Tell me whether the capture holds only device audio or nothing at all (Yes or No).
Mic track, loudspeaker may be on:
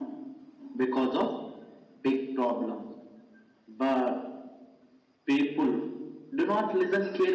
Yes